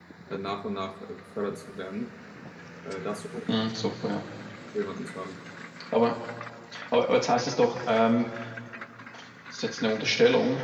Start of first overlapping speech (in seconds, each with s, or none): none